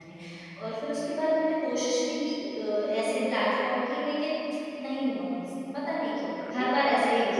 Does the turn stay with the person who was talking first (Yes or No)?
No